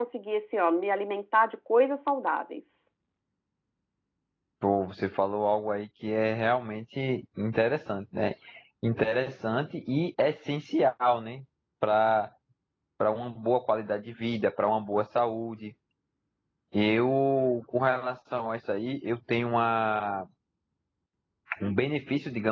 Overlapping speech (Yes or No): No